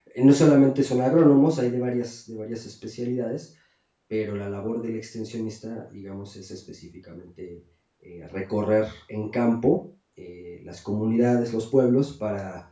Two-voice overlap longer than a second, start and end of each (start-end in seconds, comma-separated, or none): none